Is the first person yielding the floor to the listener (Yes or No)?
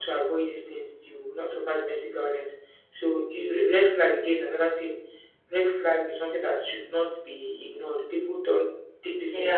Yes